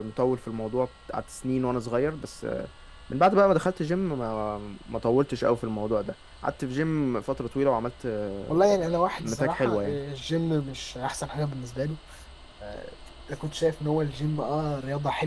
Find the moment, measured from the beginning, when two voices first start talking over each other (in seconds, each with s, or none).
8.5 s